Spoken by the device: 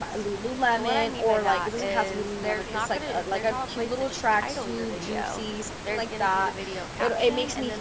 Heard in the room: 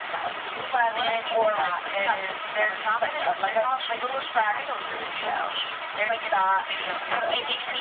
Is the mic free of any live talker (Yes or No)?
No